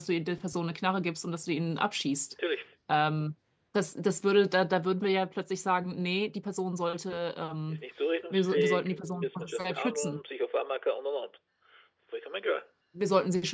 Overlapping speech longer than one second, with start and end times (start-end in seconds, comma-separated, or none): 8.3-10.2